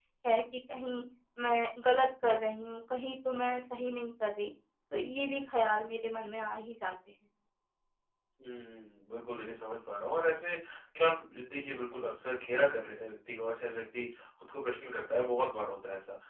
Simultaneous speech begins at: none

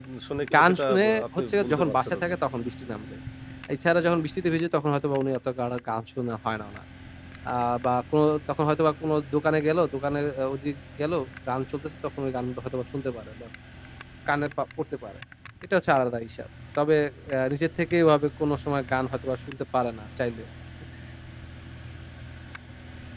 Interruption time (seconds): 0.5 s

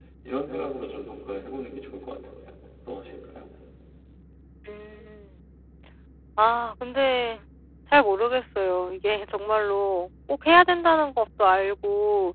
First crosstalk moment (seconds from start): none

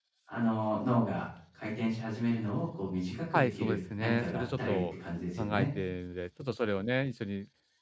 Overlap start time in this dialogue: 3.3 s

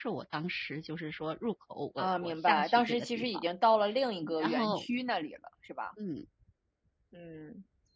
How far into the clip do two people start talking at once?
2.0 s

